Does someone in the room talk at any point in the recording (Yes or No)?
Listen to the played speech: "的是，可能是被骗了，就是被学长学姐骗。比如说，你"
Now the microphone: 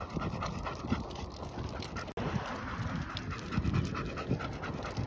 No